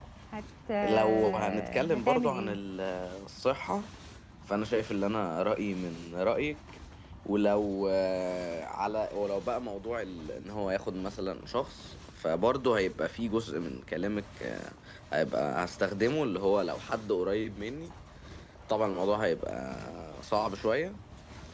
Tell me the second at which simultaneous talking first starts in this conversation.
0.8 s

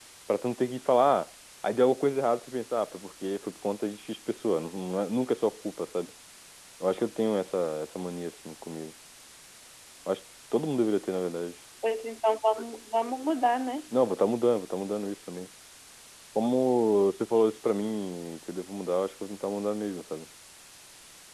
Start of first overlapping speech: none

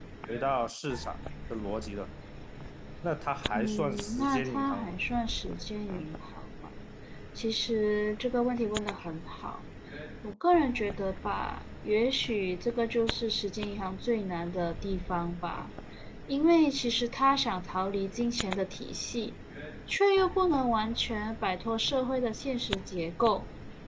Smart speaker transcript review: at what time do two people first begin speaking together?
3.5 s

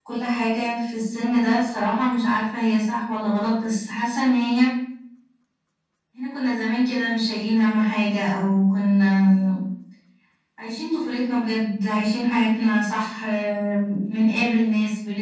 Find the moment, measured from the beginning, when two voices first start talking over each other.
none

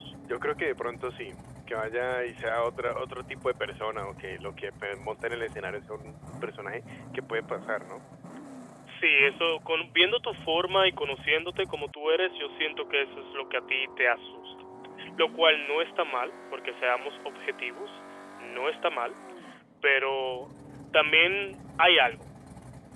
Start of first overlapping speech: none

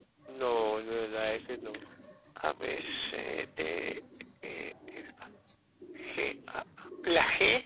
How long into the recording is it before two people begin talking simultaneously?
none

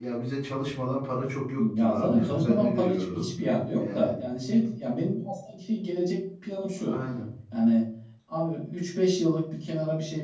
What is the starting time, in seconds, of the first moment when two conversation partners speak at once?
1.6 s

